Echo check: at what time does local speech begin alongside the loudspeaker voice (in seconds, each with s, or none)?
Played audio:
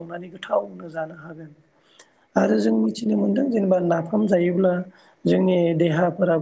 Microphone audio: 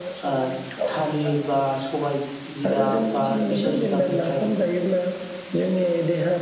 0.3 s